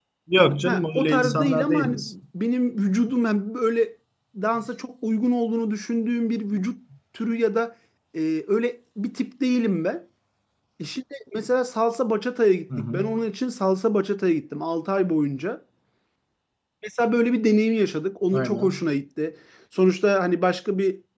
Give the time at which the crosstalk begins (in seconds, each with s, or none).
0.6 s